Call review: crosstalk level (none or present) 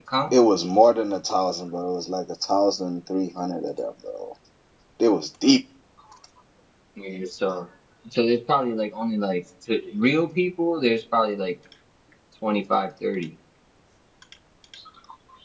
none